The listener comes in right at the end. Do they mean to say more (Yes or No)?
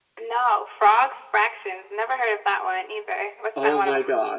Yes